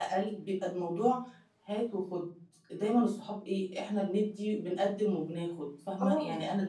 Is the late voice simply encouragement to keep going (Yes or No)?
Yes